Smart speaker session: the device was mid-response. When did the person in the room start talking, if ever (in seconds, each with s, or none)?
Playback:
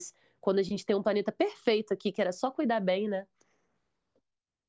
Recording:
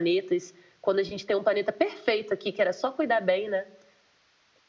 none